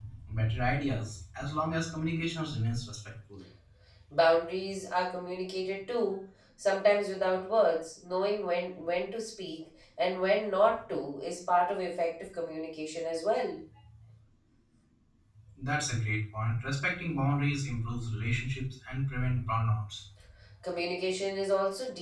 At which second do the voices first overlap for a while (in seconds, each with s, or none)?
none